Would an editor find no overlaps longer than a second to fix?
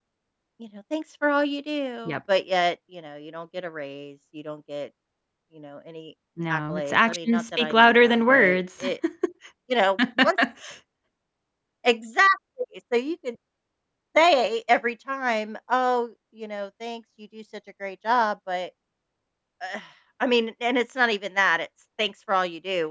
No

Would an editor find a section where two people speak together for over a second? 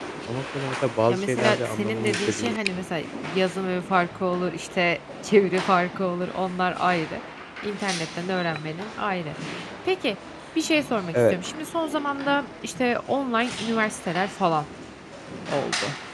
Yes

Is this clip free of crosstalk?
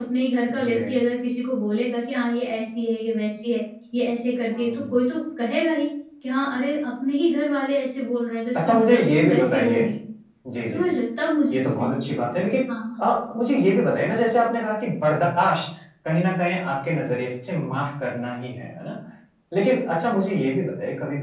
No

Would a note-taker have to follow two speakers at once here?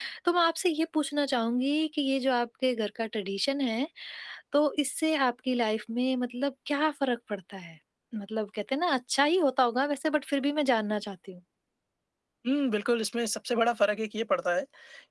No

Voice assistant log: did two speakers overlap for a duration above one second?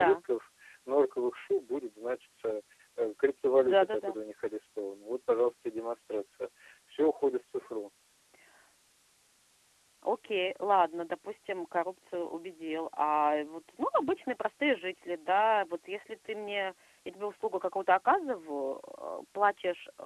No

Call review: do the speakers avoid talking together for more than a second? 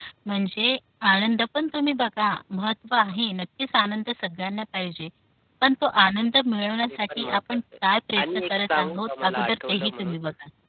No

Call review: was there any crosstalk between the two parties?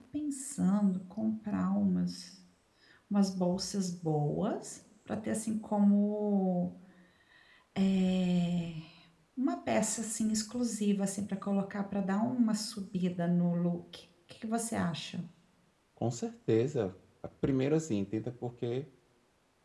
No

